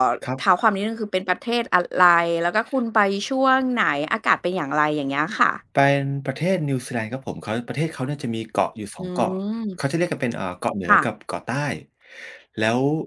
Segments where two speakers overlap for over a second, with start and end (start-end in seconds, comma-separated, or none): none